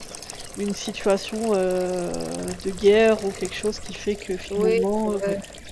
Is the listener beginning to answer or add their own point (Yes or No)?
Yes